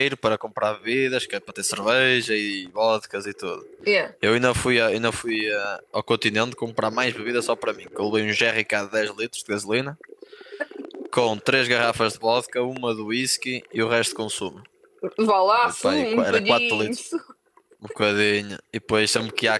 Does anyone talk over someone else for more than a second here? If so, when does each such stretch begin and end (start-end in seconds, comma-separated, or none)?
15.6-16.9